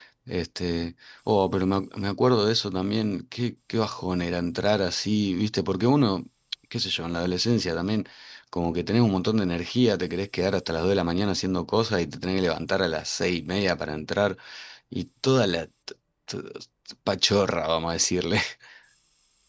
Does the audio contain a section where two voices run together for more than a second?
No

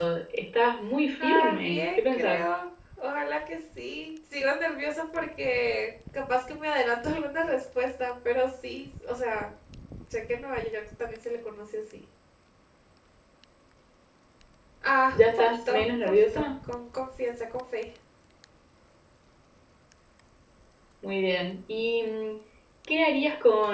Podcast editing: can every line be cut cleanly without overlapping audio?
No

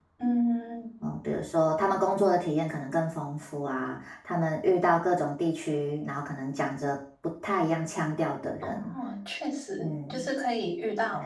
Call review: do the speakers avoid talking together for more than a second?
Yes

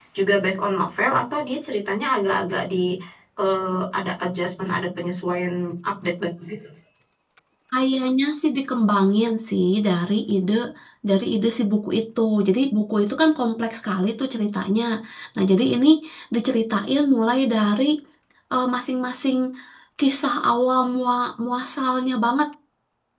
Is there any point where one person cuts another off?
No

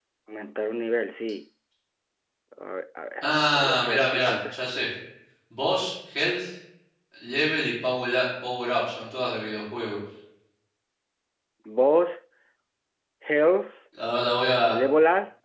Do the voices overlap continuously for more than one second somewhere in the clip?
Yes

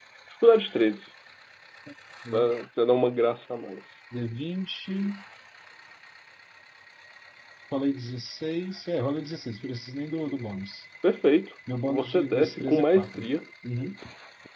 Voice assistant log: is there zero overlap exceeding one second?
No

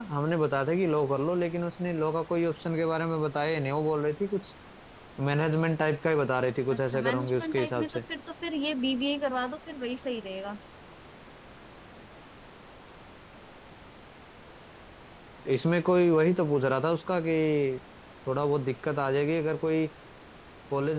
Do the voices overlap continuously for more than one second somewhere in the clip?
Yes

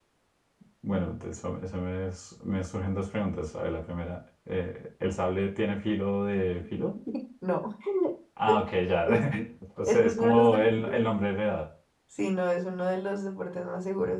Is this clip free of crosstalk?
No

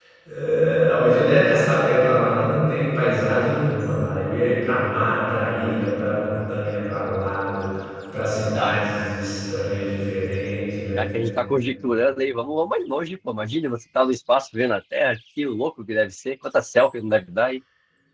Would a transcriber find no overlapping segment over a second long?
Yes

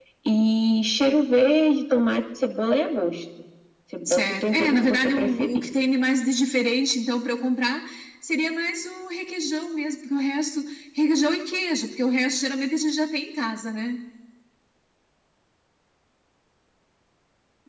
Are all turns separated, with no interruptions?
No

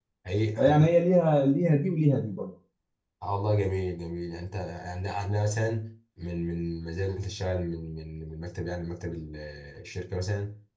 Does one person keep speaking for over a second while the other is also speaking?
No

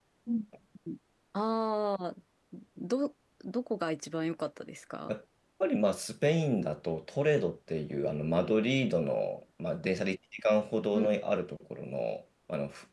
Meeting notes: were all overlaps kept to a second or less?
Yes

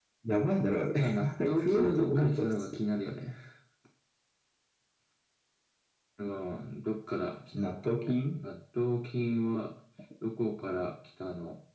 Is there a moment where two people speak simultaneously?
Yes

